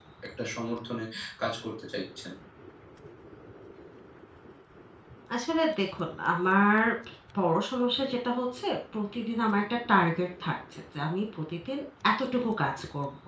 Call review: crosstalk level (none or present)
none